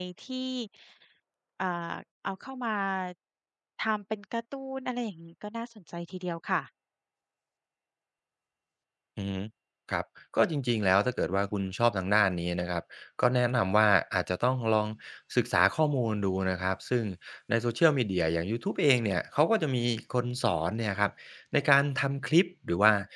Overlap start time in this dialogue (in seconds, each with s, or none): none